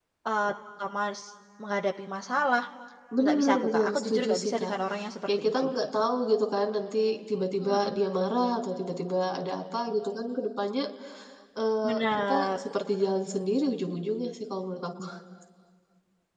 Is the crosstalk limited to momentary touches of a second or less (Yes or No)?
No